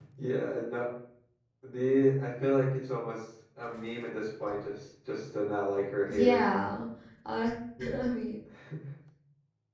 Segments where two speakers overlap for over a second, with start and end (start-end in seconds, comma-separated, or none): none